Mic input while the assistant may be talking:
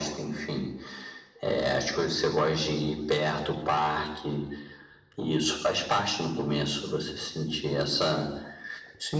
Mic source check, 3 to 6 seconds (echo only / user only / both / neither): echo only